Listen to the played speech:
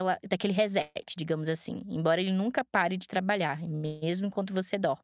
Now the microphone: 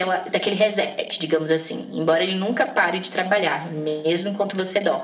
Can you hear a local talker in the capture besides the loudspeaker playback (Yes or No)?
No